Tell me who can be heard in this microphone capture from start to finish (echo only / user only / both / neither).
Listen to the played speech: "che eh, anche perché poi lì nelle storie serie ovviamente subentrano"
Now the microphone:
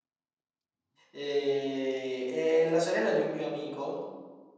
user only